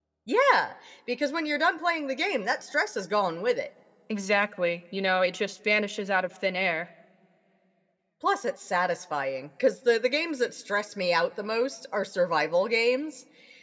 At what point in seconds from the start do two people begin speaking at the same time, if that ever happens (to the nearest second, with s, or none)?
none